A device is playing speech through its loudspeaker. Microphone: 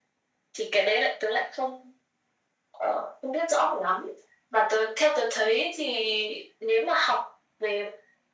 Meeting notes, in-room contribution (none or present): none